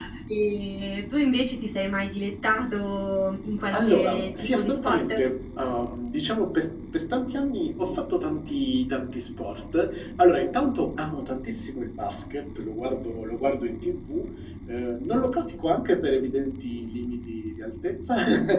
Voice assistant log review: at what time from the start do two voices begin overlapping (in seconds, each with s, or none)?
3.7 s